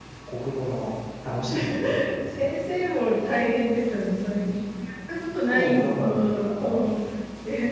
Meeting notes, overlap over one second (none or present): present